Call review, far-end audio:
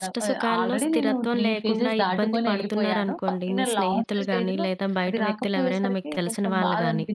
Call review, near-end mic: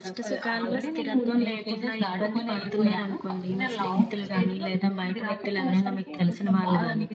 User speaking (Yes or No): No